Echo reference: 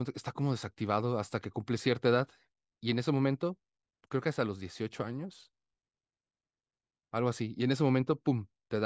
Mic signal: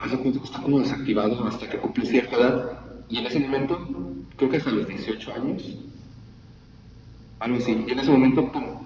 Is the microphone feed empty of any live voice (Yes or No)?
Yes